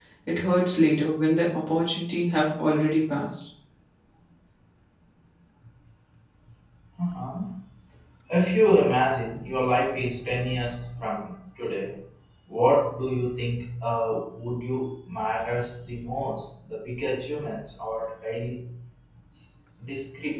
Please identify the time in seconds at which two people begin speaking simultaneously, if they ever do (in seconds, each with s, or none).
none